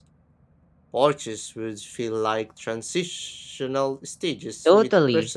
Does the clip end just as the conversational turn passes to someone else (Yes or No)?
Yes